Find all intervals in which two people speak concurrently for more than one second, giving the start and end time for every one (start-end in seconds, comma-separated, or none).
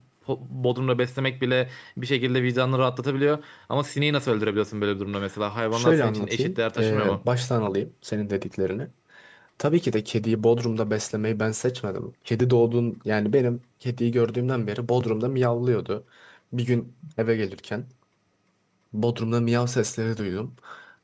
5.7-7.2